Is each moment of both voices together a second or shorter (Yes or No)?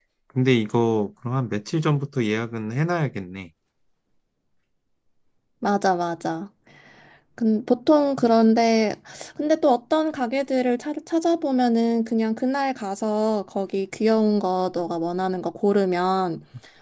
Yes